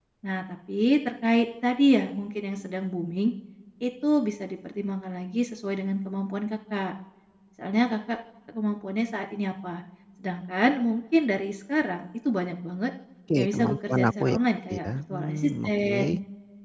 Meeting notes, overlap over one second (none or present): present